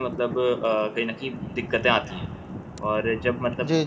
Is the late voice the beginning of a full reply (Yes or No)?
No